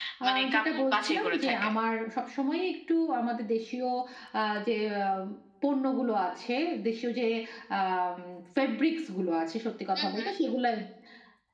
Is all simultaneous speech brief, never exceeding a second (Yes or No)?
No